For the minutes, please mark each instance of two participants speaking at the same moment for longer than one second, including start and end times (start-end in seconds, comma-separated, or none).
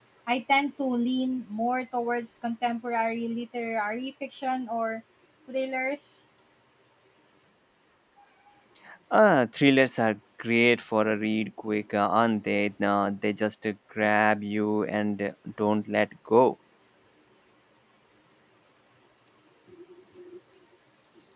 none